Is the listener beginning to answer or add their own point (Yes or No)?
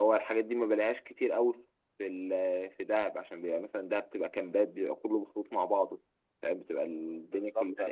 Yes